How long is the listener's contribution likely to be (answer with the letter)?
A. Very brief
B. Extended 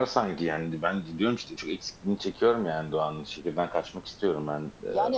B